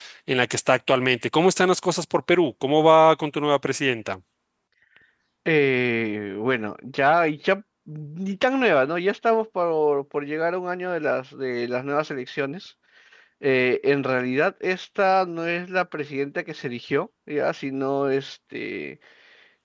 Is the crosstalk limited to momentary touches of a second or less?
Yes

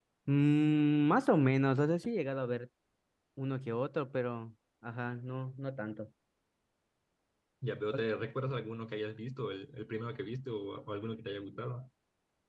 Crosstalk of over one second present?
No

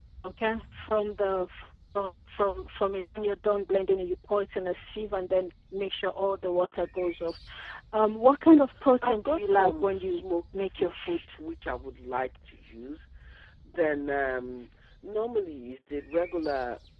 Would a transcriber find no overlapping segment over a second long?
No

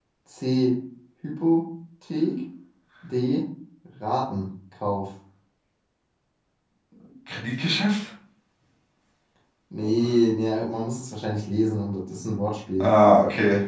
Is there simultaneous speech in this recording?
No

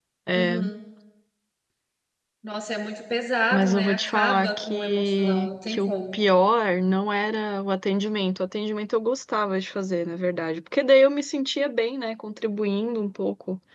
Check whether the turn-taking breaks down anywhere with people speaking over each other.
Yes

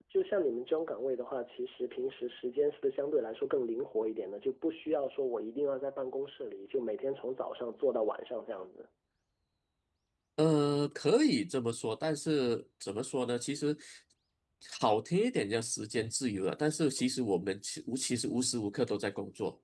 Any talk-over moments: No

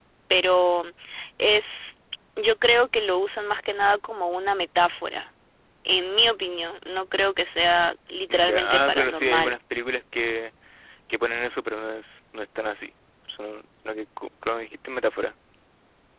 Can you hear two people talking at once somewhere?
Yes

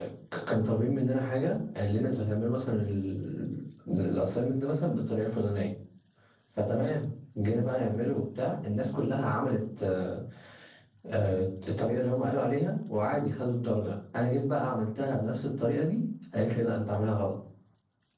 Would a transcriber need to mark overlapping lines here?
No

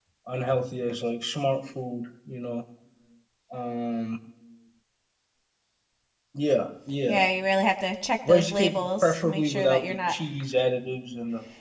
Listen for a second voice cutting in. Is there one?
Yes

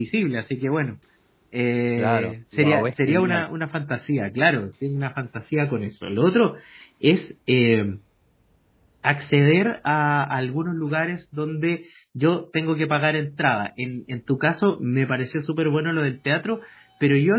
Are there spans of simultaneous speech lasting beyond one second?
Yes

